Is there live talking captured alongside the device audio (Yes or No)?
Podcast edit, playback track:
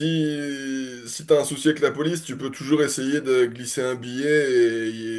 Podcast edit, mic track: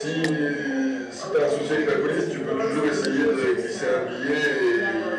Yes